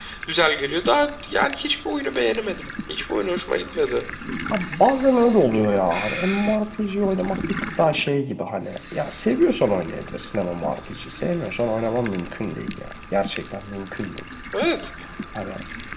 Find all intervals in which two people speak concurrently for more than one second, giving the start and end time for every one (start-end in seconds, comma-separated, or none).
none